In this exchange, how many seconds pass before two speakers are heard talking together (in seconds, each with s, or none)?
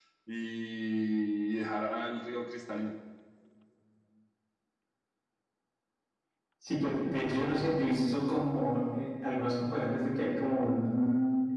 none